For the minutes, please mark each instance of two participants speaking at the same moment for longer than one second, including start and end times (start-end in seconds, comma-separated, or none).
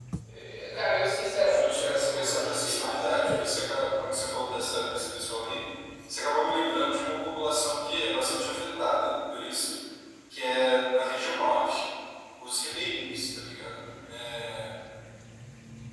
1.4-3.4